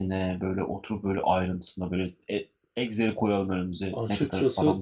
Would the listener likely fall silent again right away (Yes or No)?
No